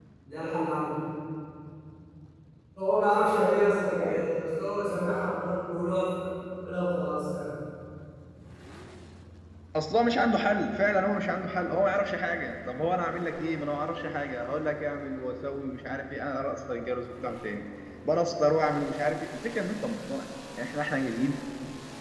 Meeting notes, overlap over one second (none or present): none